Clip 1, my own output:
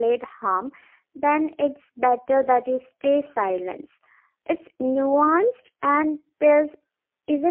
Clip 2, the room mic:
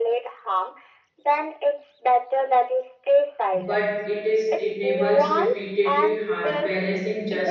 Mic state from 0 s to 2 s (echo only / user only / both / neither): echo only